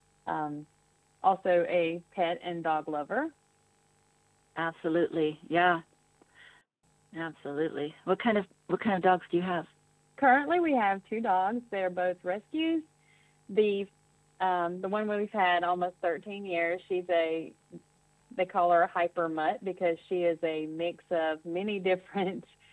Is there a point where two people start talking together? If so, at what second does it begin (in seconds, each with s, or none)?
none